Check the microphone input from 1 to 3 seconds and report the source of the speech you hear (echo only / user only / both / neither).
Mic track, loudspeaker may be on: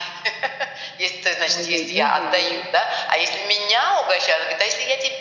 both